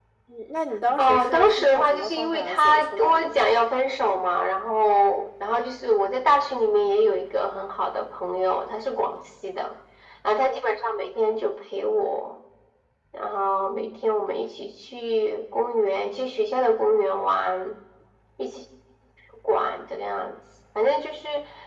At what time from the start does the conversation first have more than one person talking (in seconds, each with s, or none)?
1.0 s